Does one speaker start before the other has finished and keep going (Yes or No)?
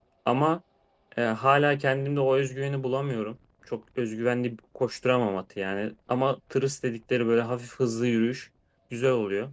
No